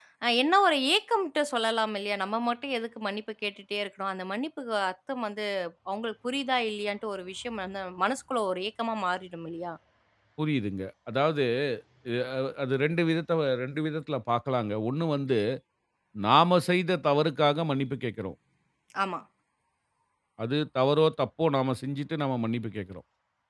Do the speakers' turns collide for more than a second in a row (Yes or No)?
No